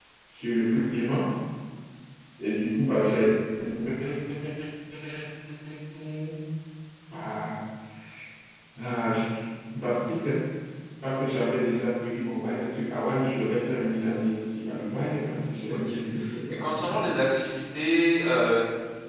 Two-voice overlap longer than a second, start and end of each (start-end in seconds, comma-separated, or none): 15.7-17.1